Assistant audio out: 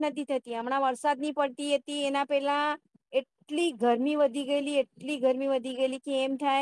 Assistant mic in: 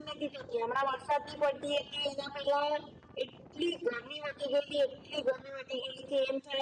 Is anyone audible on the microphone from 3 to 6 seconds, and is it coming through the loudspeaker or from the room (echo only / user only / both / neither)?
echo only